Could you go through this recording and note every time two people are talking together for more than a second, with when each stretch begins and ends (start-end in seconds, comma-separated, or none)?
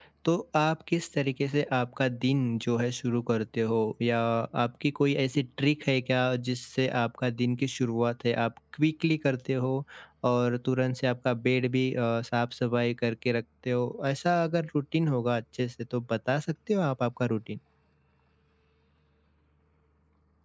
none